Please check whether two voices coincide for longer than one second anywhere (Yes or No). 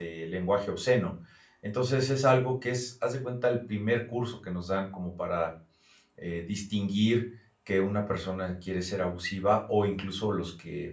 No